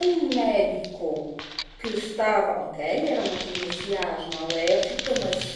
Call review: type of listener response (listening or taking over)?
listening